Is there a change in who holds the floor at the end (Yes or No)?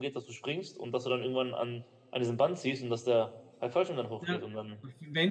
Yes